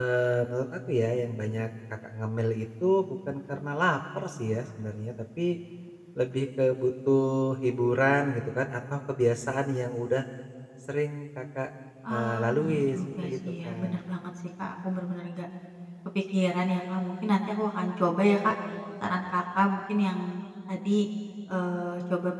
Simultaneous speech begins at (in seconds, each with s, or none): 12.0 s